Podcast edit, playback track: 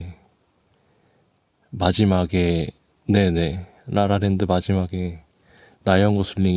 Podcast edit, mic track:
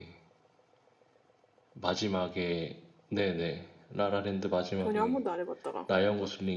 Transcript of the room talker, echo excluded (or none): 전혀 한 번도 안 해봤다가. 응.